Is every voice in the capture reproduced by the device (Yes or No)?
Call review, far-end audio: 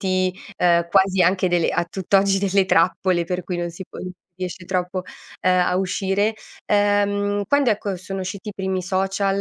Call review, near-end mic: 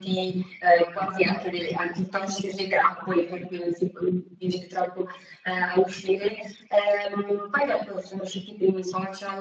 Yes